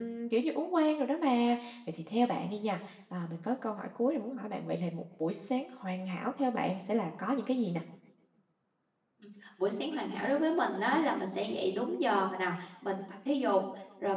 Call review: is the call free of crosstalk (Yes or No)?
Yes